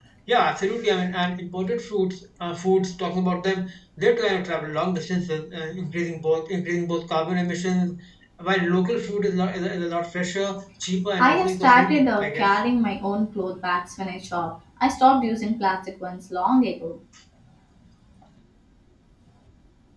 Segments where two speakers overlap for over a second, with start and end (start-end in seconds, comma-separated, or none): 11.2-12.5